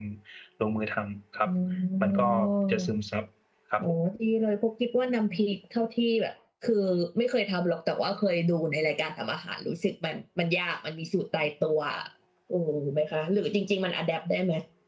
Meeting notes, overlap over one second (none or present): none